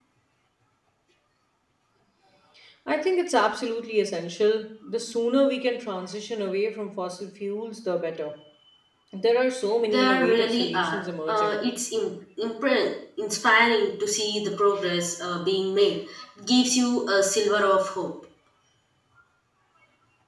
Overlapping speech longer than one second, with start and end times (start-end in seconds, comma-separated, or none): 9.8-11.6